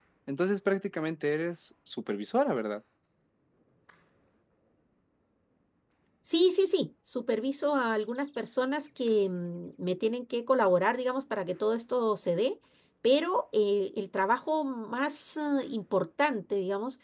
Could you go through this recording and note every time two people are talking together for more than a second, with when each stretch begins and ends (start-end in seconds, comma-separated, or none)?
none